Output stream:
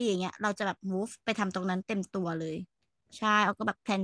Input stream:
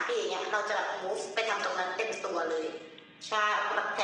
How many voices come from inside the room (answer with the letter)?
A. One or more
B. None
B